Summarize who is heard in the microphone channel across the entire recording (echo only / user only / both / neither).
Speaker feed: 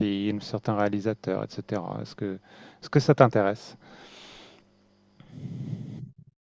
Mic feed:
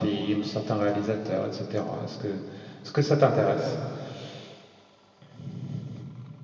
echo only